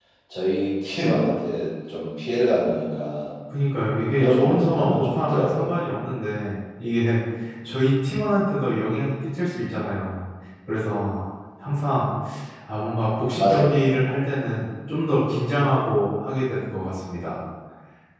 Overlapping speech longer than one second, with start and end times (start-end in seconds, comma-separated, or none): 4.2-5.7